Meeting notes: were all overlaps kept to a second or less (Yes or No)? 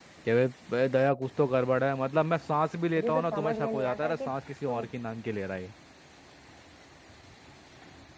No